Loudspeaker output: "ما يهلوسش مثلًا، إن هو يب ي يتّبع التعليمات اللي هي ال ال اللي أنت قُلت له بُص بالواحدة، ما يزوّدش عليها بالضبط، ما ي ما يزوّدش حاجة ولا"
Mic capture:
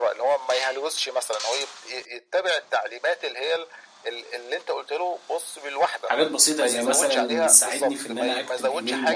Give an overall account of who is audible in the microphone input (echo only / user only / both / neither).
both